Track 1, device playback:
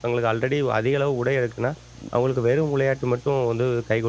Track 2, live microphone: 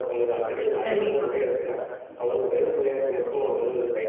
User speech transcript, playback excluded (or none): கண்டிப்பா,